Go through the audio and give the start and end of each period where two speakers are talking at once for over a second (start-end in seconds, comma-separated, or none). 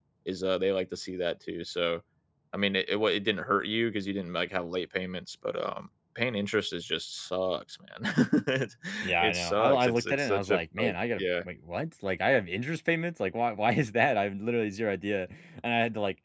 9.2-11.4